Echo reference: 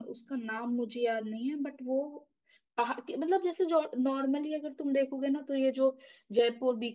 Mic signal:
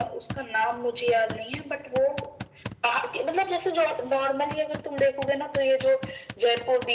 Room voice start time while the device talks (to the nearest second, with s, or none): none